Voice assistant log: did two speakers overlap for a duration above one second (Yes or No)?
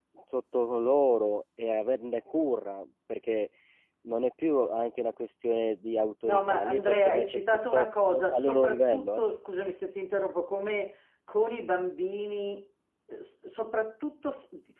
Yes